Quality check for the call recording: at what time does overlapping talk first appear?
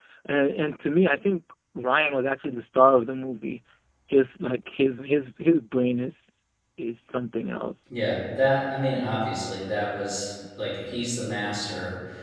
none

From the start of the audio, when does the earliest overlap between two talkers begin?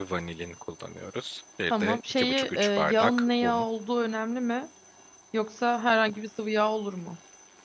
1.7 s

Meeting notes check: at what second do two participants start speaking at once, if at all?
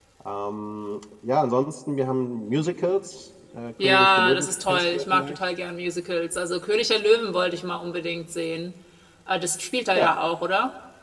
3.8 s

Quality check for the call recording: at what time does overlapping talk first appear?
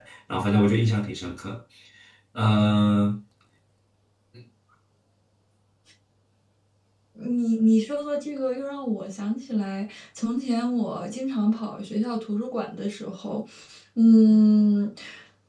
none

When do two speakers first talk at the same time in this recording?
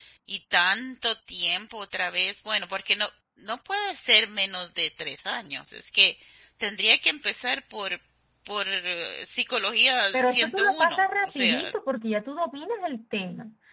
10.1 s

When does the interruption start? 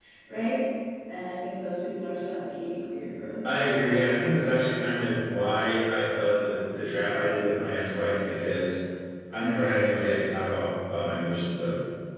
none

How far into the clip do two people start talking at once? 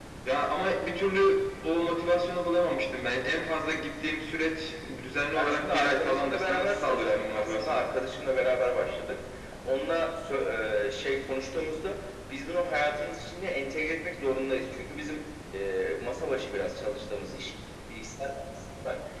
5.3 s

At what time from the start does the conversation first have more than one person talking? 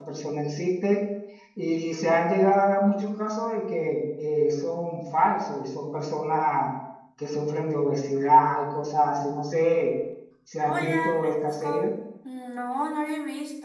10.6 s

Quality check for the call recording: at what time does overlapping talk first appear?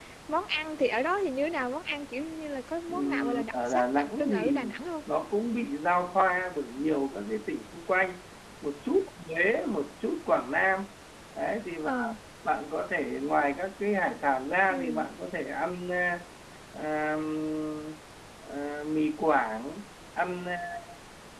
2.9 s

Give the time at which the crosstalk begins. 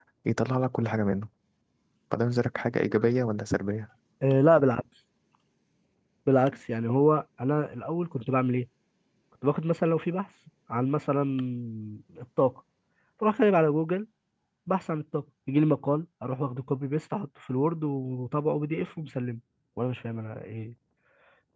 none

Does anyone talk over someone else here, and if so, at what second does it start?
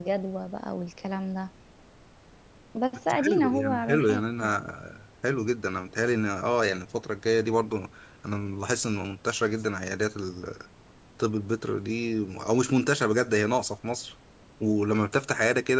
3.1 s

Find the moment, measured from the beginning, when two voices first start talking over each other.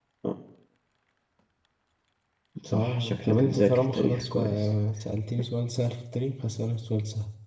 2.7 s

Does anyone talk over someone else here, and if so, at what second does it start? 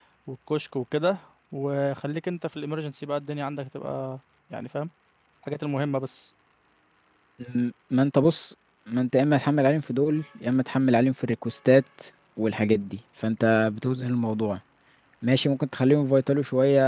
none

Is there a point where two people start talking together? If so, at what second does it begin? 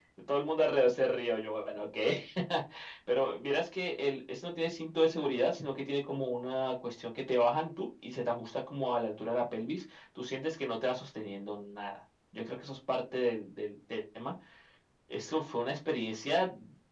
none

